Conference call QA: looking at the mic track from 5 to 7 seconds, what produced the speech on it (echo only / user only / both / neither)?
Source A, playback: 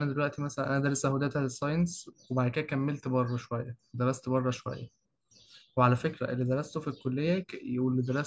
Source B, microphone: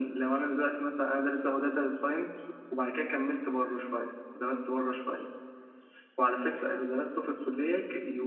echo only